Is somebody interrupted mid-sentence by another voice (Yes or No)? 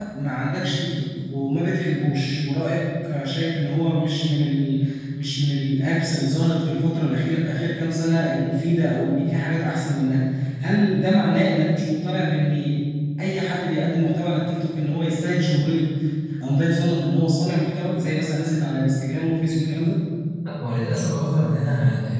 No